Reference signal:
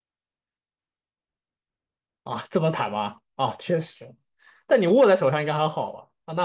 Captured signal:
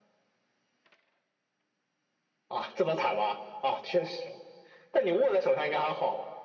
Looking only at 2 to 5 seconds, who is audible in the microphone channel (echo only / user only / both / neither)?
echo only